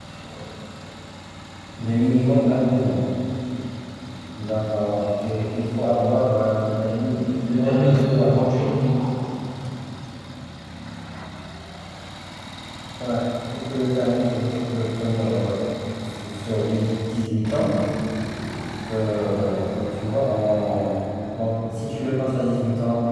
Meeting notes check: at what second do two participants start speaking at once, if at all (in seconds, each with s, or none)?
7.2 s